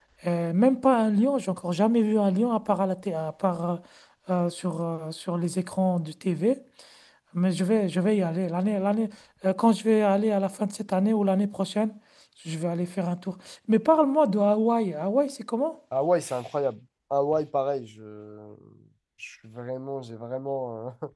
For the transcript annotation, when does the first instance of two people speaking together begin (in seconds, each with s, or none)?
none